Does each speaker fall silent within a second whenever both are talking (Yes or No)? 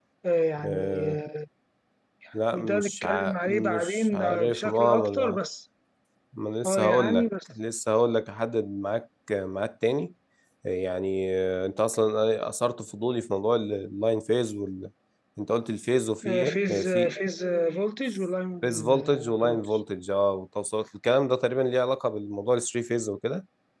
No